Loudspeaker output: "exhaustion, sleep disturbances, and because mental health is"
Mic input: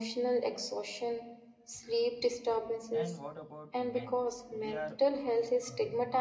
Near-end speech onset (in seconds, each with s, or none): 2.9 s